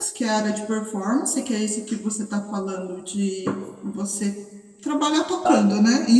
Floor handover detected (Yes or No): No